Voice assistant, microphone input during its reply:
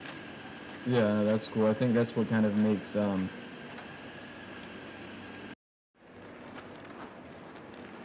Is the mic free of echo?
Yes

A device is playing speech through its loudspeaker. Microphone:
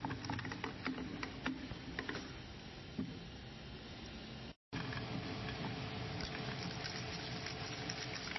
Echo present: No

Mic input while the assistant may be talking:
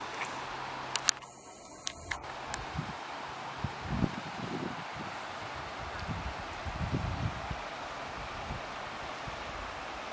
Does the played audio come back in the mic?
No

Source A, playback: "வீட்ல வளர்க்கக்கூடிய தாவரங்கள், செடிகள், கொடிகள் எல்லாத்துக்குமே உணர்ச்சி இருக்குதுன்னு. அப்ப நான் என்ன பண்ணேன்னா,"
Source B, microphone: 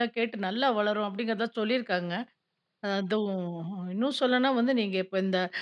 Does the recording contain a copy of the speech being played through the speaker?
No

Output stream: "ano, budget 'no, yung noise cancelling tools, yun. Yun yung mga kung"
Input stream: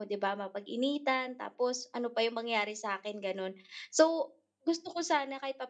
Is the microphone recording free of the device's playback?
Yes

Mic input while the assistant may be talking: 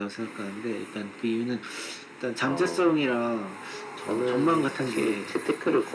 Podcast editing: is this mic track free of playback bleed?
No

